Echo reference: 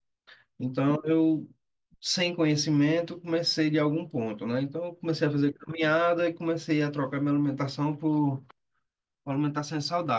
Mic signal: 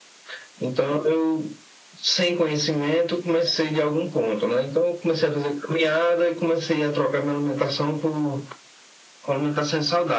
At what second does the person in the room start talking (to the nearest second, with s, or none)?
none